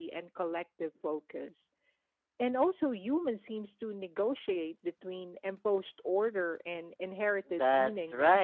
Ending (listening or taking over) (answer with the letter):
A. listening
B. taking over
B